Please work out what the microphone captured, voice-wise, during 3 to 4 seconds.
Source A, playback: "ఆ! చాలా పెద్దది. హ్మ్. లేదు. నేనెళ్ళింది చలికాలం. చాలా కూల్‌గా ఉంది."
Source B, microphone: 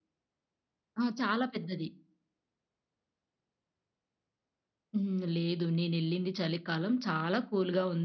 neither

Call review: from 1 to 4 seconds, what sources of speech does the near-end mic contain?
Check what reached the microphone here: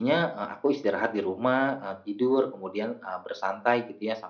echo only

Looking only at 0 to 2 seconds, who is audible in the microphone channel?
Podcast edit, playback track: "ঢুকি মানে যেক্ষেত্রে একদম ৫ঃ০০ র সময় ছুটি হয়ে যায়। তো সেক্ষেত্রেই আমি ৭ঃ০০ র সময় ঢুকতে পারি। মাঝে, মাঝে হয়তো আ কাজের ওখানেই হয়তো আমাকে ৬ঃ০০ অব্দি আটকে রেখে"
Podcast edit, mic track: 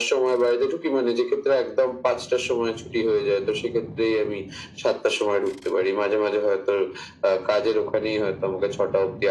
echo only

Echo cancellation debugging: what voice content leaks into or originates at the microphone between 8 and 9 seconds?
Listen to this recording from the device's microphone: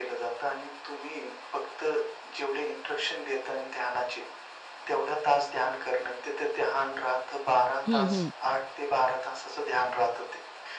both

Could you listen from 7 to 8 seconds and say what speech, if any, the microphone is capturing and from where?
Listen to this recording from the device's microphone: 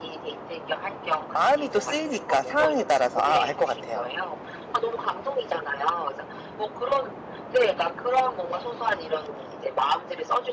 echo only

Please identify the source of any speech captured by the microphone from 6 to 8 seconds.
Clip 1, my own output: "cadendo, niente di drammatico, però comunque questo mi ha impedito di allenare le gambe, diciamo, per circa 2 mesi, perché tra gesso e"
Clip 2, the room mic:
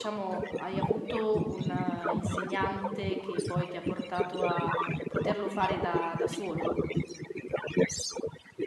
both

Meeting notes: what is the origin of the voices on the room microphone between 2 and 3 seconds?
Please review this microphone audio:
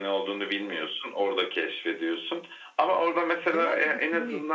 echo only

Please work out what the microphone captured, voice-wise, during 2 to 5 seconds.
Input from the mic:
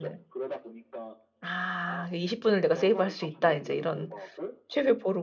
both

